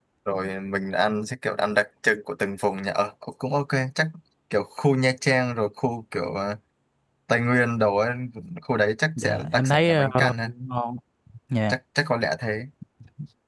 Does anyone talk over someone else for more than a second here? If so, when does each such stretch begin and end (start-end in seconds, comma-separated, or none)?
9.2-10.5